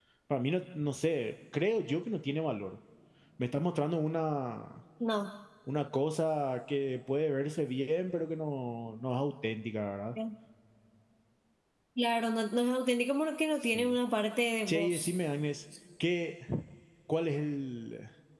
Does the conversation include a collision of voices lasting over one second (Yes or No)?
No